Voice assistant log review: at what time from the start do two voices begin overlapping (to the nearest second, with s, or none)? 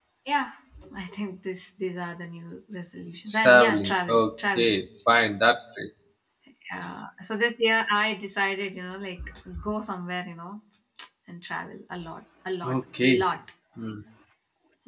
3 s